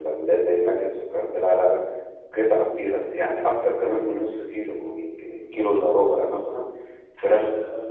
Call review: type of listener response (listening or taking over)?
listening